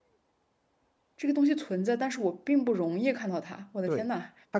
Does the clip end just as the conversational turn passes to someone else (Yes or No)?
Yes